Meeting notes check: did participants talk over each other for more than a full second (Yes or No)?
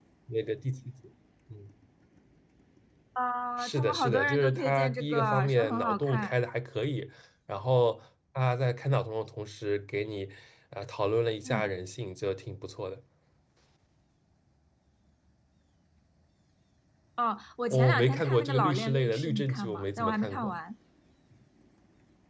Yes